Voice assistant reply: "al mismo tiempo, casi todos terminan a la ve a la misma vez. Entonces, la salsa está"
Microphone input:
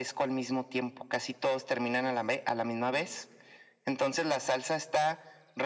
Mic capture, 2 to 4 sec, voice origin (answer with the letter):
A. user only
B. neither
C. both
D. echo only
D